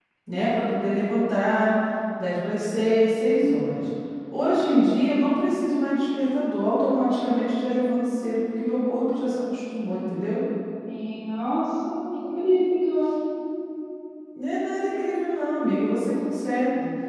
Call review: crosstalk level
none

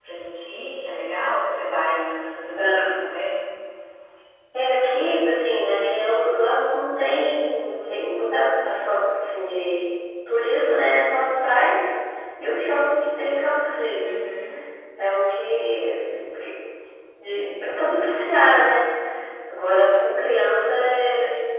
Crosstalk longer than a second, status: none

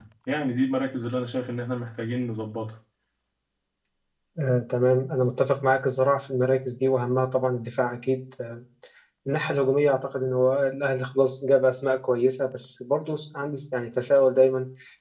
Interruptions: none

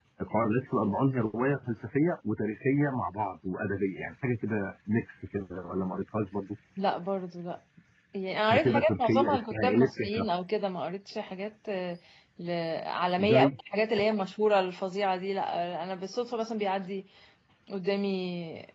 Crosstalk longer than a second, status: present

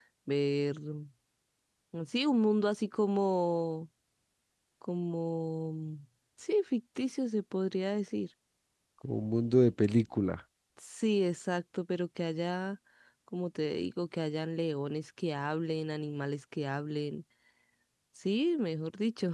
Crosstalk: none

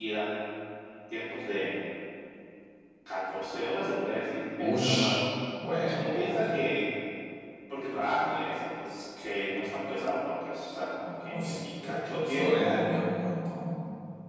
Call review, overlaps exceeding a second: present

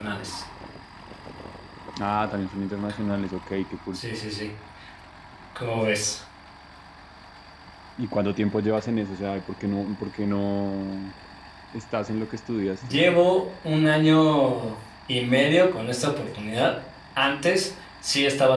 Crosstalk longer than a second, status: none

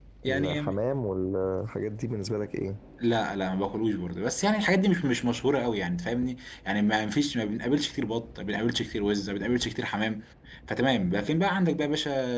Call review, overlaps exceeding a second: none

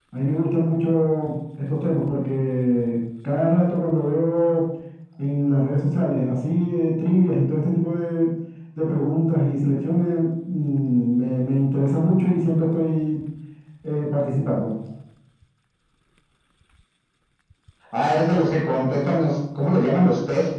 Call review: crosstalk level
none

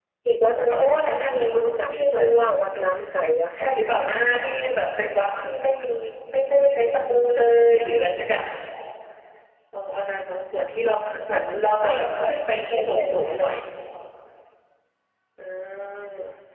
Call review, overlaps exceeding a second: present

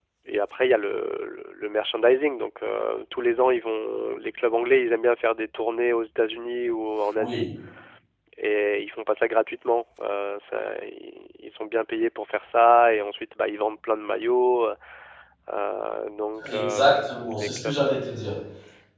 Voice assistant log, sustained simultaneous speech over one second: present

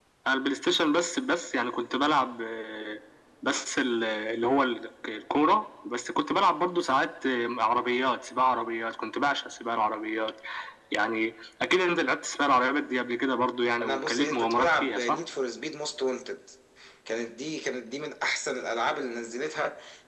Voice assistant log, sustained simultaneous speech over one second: present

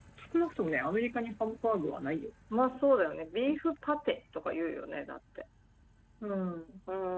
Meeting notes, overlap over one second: none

